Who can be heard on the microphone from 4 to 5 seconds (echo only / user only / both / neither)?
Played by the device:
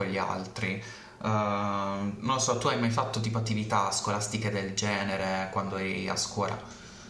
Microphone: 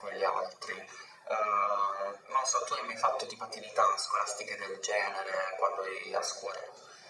echo only